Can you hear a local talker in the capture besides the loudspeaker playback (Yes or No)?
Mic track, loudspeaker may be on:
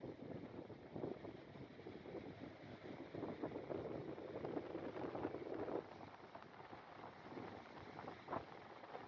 No